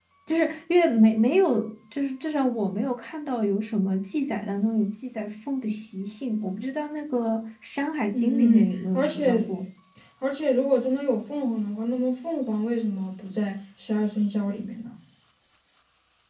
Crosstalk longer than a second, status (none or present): present